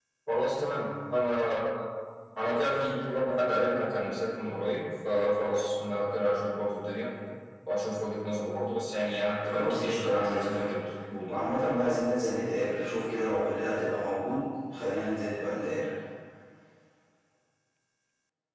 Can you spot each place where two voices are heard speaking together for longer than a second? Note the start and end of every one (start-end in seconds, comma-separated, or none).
9.4-10.7